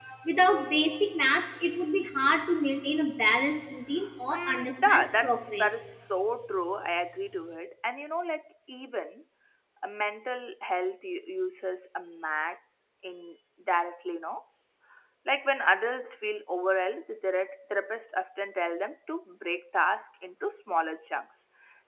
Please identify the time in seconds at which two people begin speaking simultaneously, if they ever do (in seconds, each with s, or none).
4.3 s